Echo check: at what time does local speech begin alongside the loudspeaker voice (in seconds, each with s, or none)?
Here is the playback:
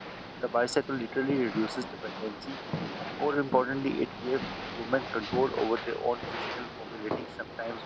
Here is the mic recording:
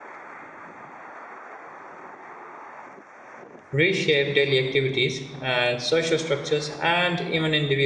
3.7 s